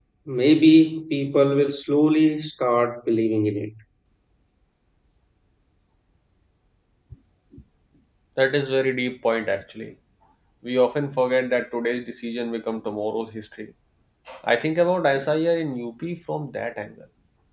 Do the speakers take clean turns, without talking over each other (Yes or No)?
Yes